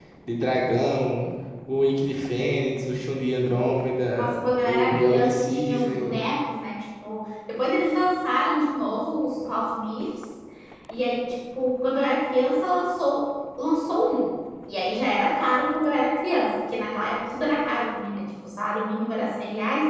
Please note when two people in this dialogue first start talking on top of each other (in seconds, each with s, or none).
4.2 s